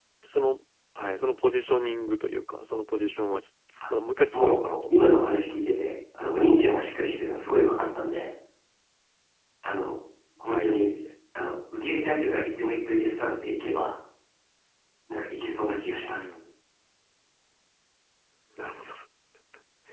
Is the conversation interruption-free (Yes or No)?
No